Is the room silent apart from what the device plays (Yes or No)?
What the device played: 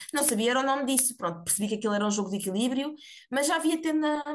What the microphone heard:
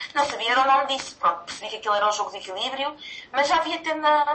Yes